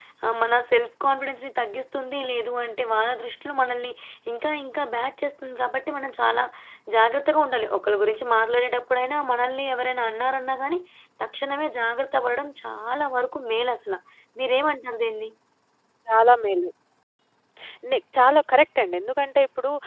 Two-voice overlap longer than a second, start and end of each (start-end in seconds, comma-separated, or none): none